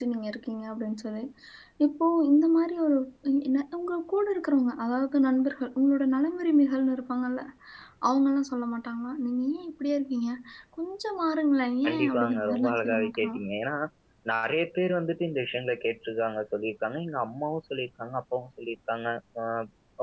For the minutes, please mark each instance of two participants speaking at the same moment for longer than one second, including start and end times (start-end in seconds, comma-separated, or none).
11.8-13.4